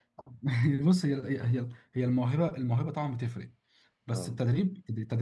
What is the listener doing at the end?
listening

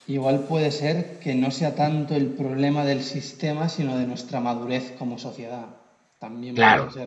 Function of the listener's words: taking over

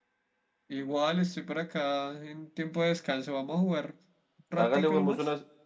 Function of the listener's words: taking over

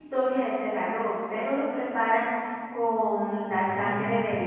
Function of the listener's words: listening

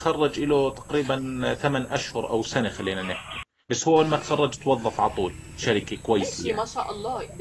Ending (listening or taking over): taking over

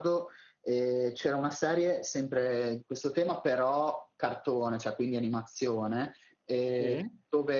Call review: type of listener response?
listening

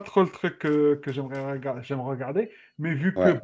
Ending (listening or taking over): listening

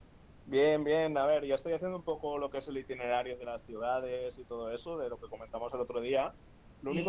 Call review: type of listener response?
listening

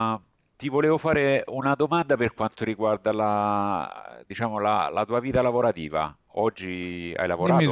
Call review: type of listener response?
taking over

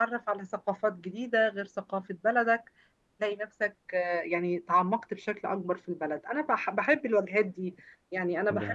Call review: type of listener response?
listening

